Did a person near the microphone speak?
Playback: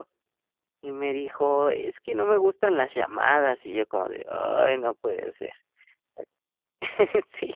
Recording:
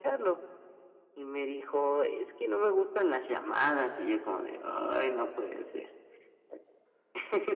No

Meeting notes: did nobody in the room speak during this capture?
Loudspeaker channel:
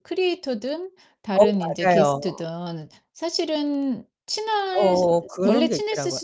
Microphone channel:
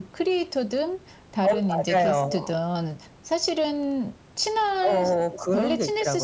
Yes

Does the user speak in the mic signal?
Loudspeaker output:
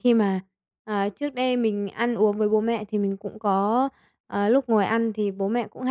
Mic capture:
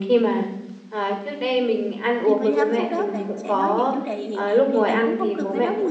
Yes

